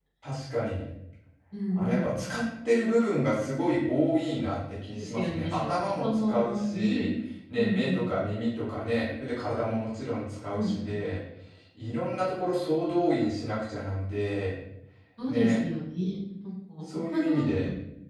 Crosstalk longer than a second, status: present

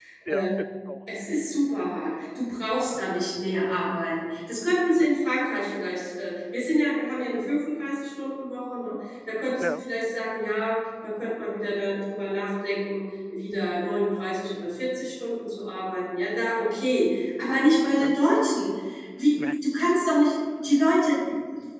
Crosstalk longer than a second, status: none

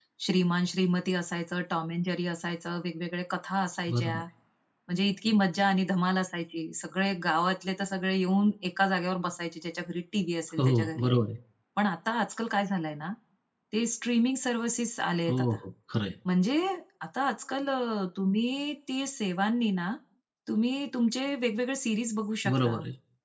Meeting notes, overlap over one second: none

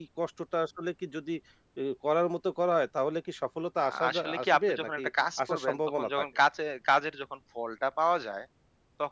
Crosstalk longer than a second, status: present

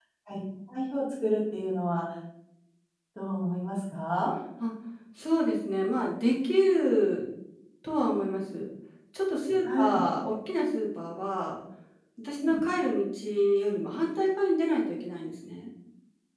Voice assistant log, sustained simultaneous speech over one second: none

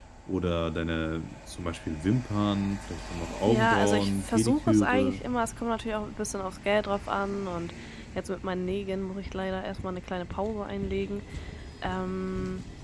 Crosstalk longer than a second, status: present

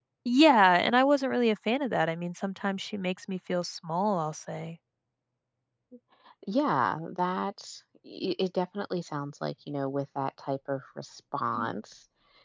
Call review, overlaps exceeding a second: none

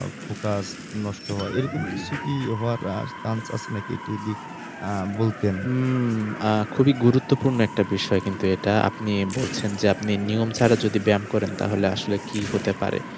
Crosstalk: none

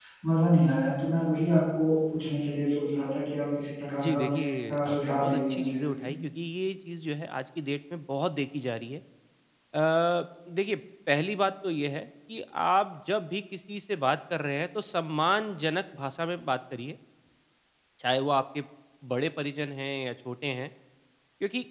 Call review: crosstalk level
present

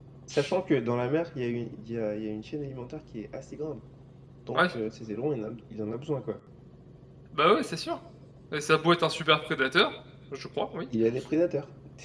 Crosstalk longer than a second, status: none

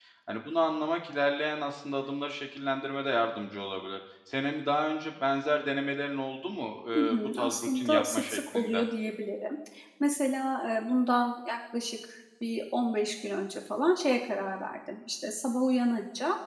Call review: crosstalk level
present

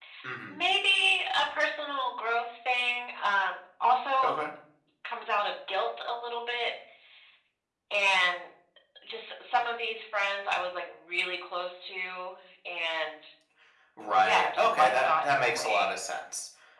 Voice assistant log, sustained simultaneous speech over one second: present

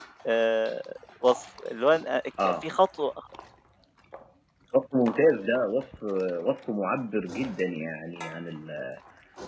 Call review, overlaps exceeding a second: none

